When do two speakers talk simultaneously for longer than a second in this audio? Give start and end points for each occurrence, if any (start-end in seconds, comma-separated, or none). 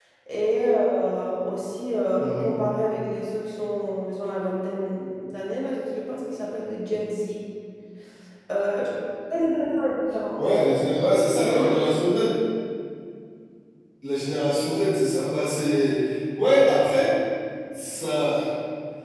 none